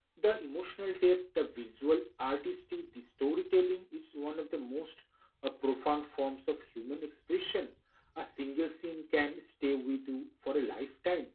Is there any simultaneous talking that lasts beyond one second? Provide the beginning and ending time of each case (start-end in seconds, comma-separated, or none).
none